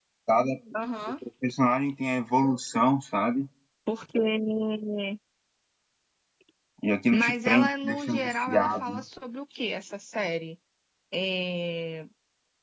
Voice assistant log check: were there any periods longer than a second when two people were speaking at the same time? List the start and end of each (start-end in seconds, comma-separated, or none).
7.1-9.0